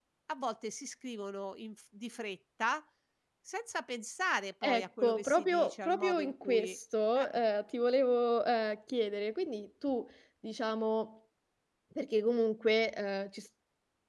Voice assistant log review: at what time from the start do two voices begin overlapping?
5 s

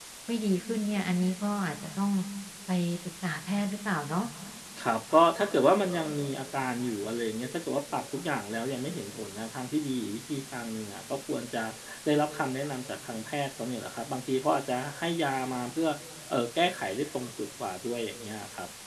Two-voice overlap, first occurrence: none

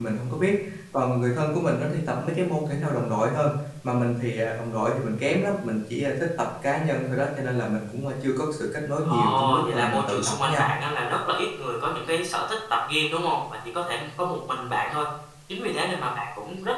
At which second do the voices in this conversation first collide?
9 s

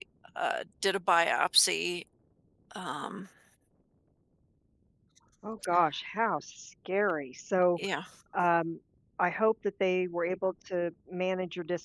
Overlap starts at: none

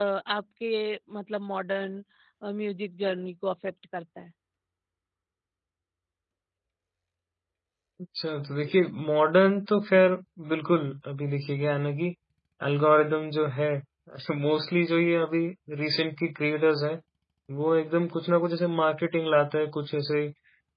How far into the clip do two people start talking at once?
none

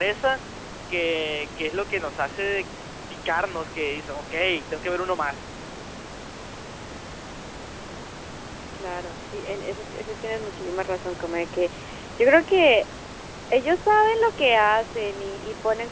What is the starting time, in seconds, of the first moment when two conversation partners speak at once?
none

